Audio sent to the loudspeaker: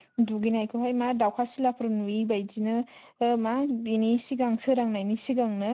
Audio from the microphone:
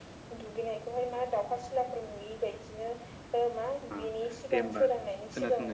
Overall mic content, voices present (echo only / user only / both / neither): both